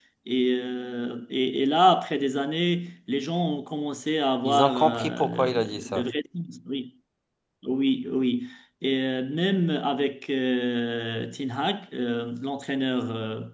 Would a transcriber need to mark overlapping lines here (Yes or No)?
Yes